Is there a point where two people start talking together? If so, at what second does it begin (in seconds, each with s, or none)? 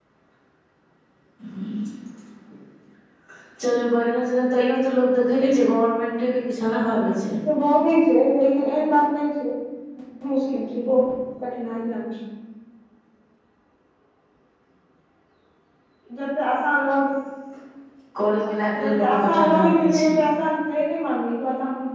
18.8 s